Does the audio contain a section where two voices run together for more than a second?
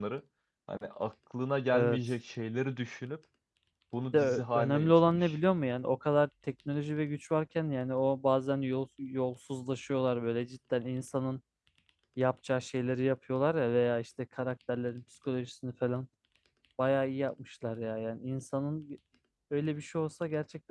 Yes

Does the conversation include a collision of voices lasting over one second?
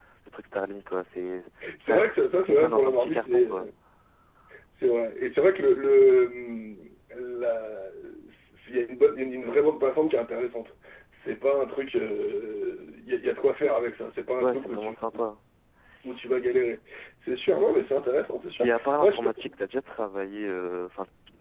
Yes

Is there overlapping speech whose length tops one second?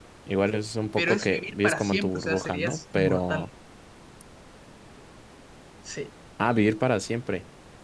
Yes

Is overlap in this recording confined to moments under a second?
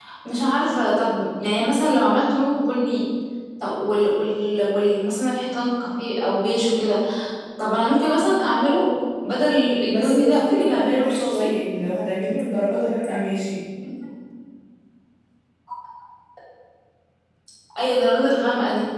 No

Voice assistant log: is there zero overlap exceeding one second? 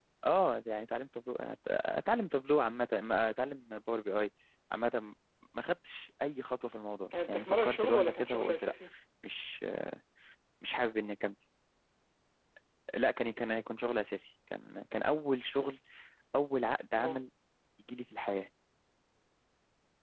No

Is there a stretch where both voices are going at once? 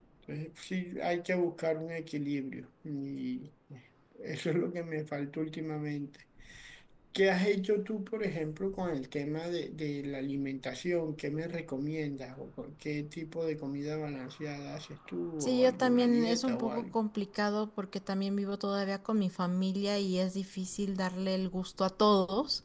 Yes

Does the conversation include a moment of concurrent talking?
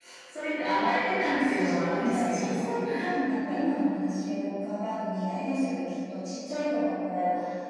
Yes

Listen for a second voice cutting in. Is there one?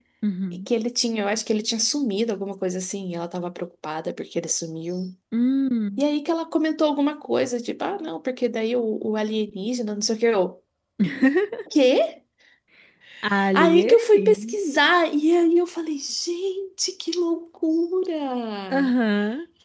Yes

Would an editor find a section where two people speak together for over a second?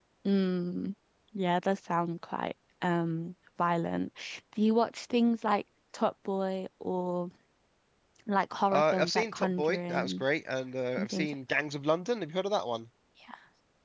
Yes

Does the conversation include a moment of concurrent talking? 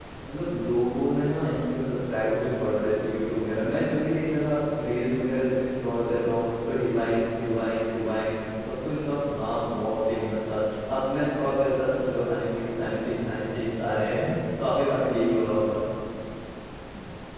No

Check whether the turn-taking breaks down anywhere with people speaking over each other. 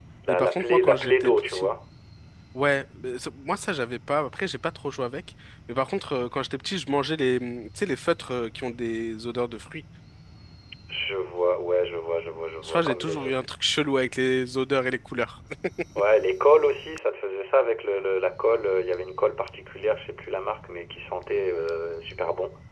Yes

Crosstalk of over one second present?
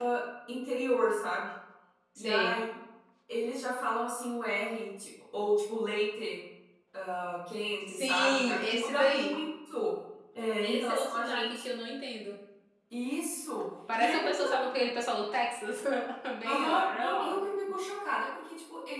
Yes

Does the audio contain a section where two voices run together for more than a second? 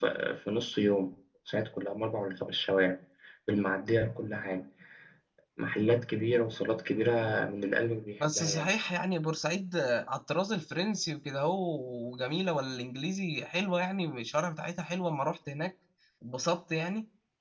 No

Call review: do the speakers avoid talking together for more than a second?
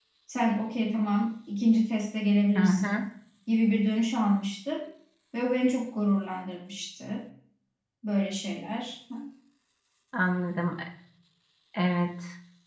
Yes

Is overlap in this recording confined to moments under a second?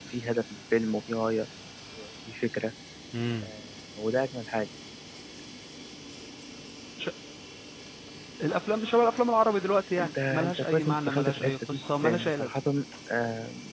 No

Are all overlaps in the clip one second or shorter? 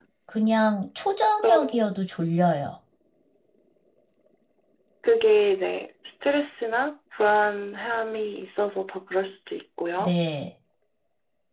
Yes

